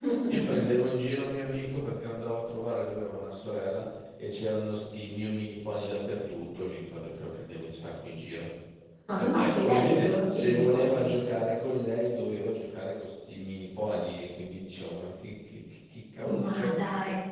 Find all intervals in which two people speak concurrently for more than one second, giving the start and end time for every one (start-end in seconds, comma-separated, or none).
9.2-11.1